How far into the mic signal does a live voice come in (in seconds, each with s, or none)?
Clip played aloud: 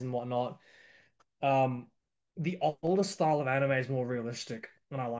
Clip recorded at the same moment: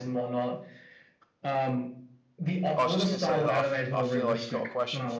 2.7 s